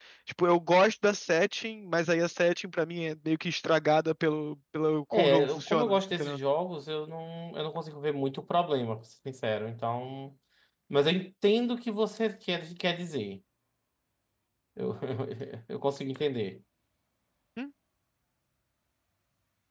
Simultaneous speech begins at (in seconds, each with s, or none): 5.1 s